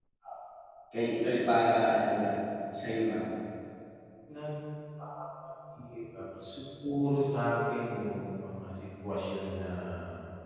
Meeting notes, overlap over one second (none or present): none